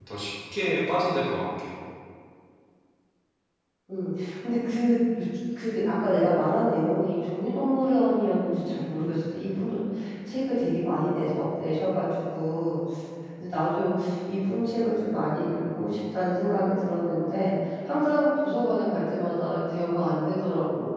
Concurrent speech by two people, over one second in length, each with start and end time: none

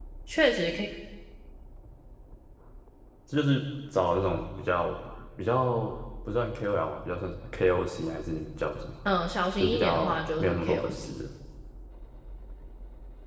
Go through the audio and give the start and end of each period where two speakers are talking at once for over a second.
9.6-11.1

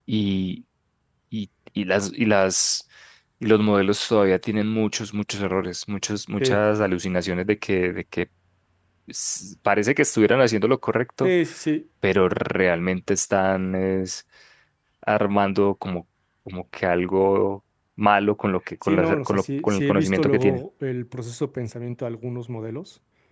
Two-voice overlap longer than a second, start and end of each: 18.8-20.6

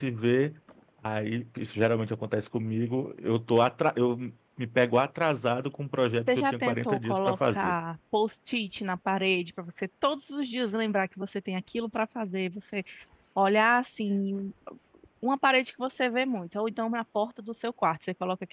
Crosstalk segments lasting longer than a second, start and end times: 6.3-7.7

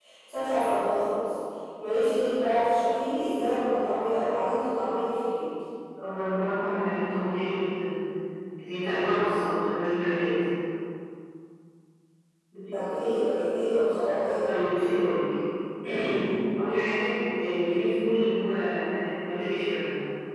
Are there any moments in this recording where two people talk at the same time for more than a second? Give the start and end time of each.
none

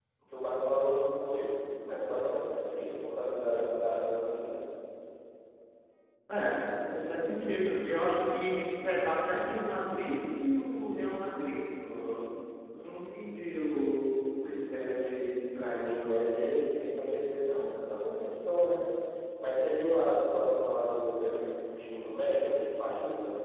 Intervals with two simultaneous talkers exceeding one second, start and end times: none

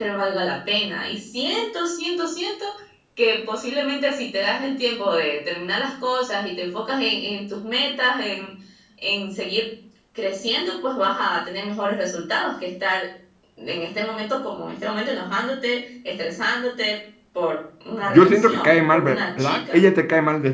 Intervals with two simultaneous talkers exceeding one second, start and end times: 18.1-19.8

